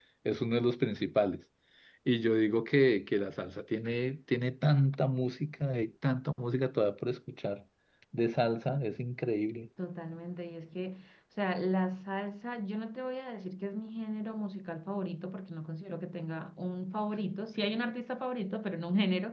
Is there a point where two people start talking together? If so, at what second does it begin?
none

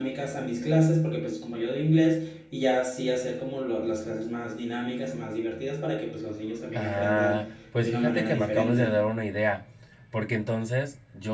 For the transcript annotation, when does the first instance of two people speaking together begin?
6.7 s

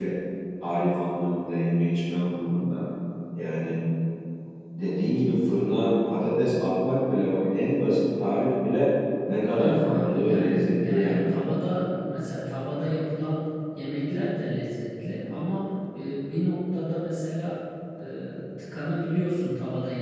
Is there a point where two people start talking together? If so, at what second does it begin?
9.5 s

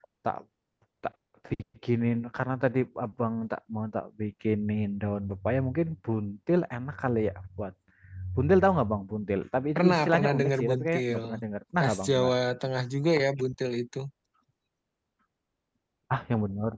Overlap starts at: 9.8 s

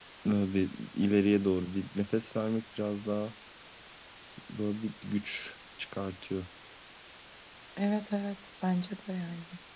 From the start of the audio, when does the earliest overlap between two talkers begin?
none

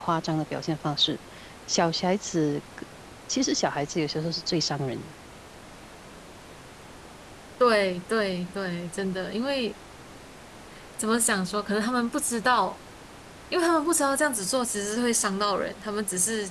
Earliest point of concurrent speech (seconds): none

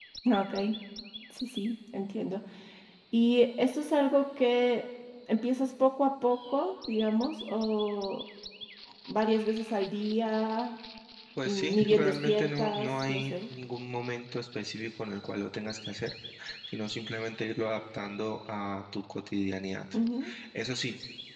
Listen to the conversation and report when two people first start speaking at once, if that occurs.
11.4 s

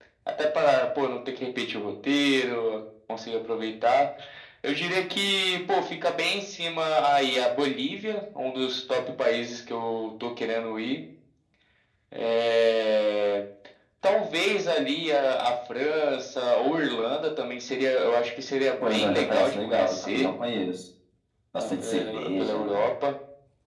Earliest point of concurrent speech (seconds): 18.8 s

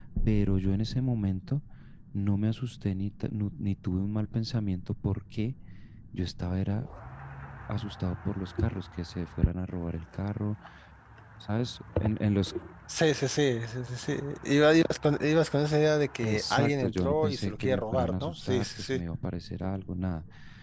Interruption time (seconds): 16.2 s

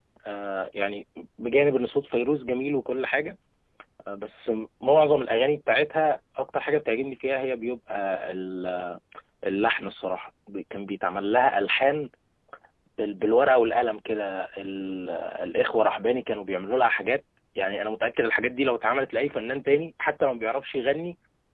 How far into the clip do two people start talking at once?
none

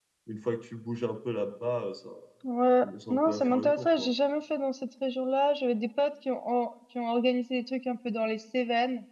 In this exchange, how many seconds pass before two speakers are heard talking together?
2.8 s

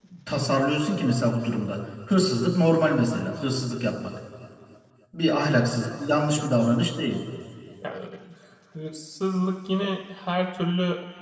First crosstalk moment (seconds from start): none

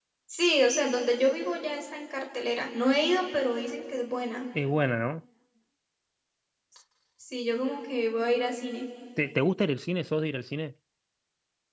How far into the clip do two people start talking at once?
none

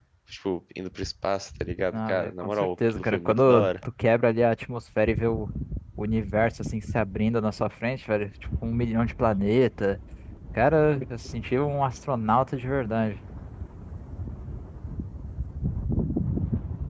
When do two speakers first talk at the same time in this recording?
1.9 s

